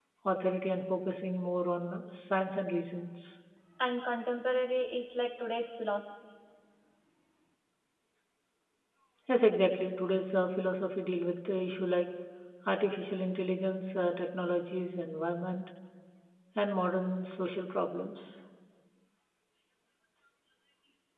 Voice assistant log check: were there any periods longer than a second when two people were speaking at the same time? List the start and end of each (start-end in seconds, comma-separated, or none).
none